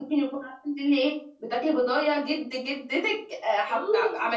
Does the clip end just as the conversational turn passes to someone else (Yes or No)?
Yes